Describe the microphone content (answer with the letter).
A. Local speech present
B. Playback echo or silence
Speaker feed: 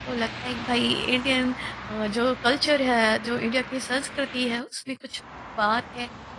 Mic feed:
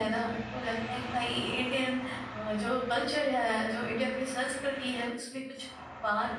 B